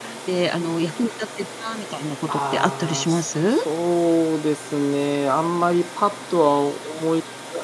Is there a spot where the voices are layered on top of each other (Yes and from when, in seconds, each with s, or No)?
Yes, from 2.3 s